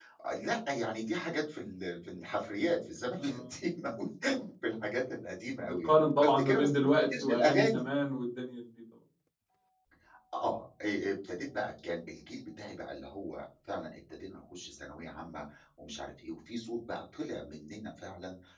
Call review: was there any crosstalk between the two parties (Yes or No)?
Yes